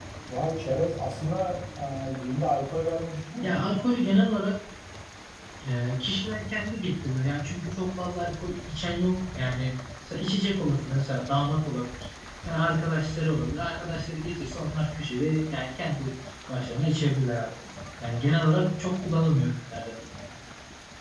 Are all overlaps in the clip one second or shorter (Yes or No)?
Yes